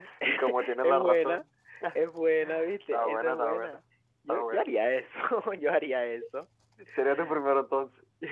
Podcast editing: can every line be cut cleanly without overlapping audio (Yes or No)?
No